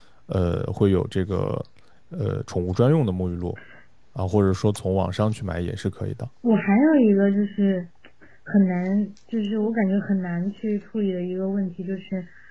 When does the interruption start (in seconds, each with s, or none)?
none